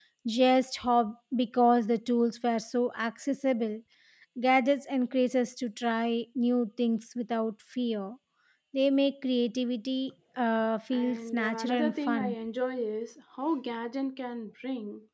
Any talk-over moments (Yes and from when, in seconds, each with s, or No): Yes, from 10.9 s